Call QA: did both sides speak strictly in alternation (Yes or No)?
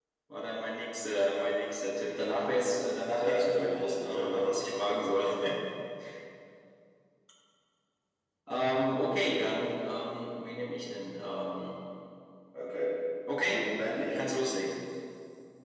No